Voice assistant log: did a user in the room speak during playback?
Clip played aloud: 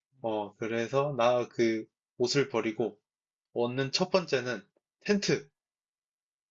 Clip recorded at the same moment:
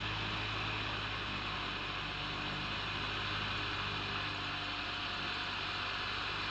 No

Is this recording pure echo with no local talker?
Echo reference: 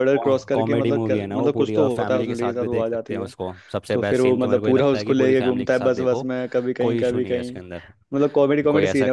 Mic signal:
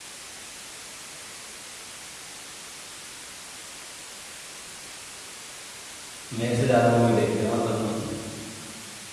No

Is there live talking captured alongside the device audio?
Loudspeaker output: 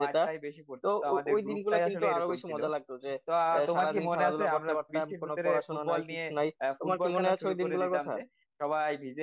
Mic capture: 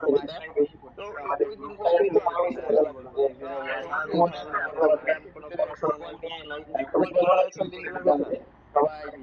Yes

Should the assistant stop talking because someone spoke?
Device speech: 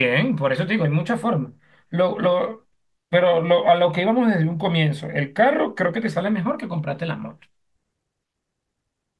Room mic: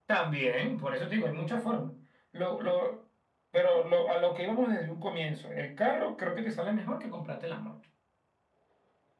No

